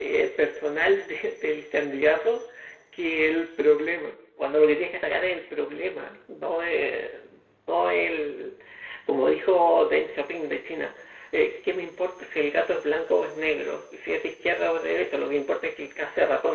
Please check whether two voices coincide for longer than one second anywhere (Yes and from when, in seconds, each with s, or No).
No